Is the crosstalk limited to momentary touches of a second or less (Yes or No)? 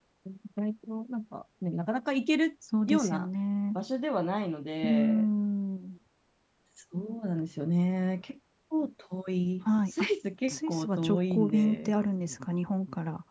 No